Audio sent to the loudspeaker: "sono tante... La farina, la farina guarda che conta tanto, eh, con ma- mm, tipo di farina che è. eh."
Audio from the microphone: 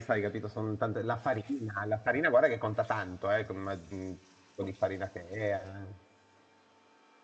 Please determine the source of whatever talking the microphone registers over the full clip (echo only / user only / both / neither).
echo only